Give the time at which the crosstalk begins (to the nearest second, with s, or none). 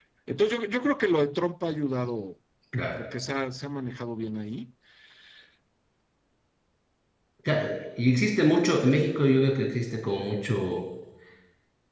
none